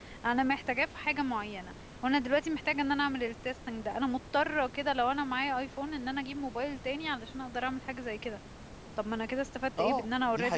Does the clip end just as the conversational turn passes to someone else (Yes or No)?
Yes